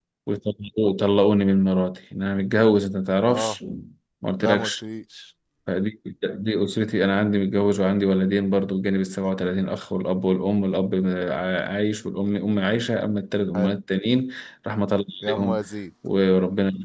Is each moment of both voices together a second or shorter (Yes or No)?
Yes